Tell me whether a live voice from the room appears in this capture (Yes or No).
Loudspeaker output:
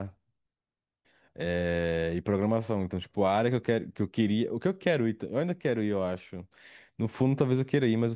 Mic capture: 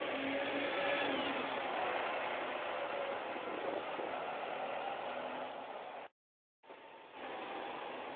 No